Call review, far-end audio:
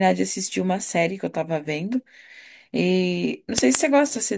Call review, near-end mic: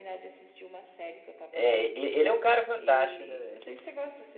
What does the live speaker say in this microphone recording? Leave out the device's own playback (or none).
É, e- ele é um cara fantástico, né, velho?